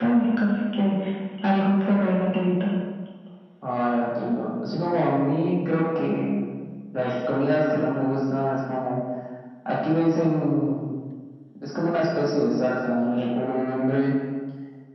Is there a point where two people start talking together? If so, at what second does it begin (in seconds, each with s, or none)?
none